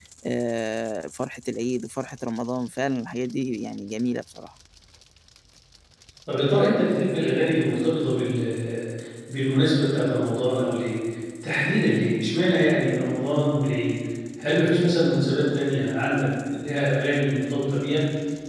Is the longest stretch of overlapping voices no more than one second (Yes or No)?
Yes